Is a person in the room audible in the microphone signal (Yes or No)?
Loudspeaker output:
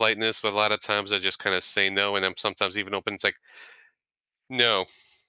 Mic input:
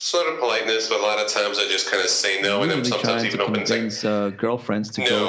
Yes